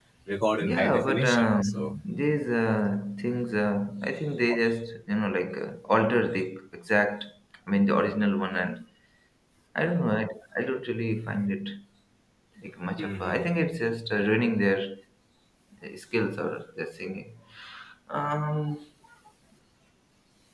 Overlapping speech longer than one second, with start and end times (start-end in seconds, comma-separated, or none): 0.6-2.0